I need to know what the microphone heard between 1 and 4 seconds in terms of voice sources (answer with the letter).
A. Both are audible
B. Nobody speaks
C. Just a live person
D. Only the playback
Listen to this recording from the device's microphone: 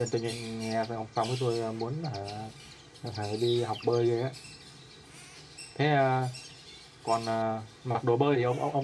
D